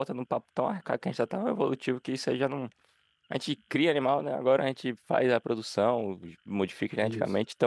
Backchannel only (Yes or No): Yes